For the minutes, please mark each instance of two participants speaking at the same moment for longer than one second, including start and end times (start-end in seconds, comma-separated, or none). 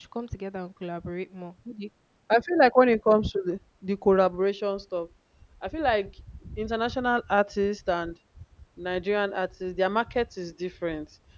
none